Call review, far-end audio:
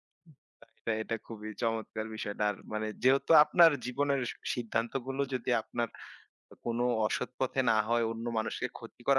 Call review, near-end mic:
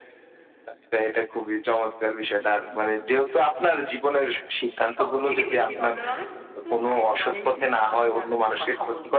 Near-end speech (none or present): present